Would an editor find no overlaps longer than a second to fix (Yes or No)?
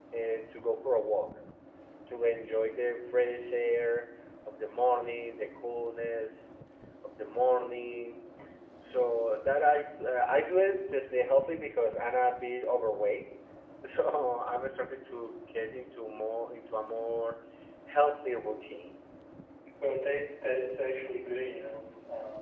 Yes